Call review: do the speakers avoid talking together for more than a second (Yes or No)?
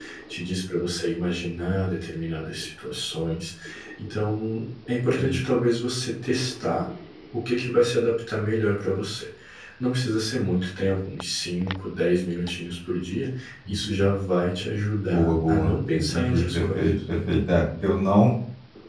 No